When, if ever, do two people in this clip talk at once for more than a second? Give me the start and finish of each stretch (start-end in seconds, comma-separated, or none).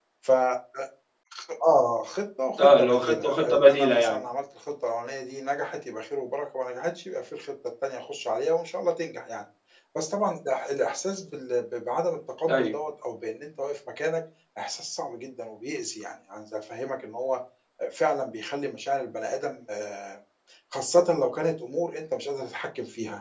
2.6-4.2